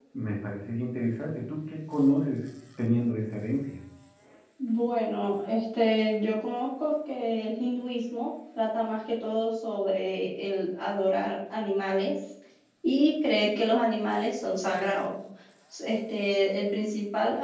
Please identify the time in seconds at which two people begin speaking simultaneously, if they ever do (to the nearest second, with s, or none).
none